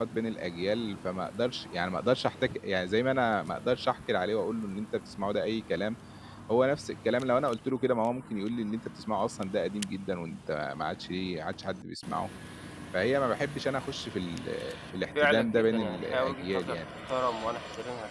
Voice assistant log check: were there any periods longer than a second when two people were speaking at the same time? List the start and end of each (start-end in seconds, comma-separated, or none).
15.2-16.8